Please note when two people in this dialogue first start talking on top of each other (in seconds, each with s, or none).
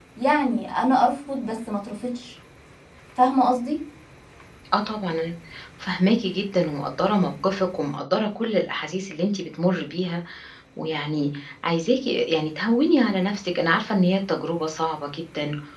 none